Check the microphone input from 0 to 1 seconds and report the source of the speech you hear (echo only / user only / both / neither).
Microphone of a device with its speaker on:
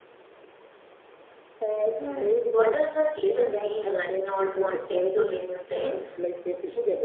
neither